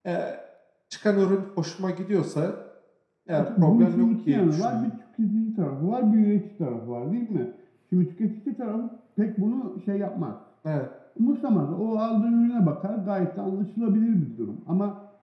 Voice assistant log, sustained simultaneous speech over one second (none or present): present